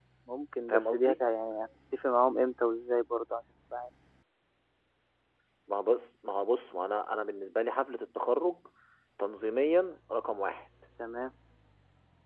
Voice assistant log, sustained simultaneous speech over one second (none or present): none